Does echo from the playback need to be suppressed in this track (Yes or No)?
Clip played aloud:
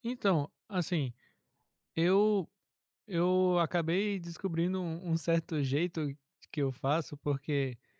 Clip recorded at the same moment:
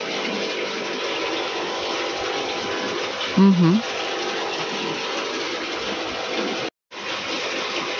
No